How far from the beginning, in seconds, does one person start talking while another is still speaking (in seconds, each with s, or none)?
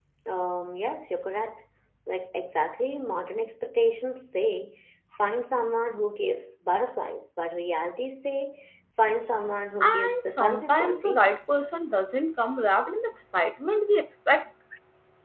9.8 s